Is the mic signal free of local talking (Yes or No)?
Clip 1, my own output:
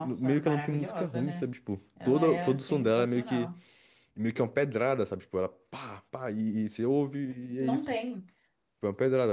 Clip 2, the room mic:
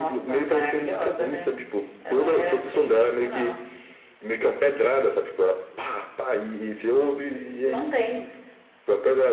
Yes